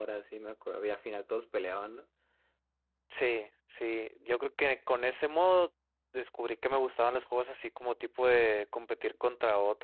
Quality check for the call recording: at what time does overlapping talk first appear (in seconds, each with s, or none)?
none